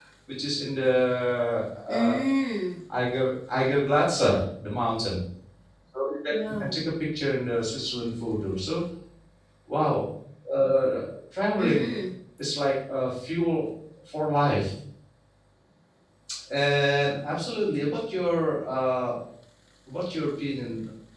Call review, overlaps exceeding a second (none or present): none